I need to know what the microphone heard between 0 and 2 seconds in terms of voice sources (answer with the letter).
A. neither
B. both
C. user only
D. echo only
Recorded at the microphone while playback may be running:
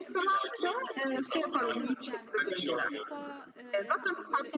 B